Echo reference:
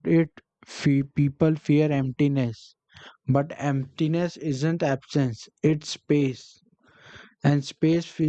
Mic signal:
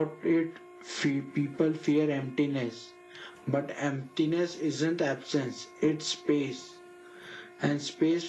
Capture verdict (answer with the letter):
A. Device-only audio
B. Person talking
A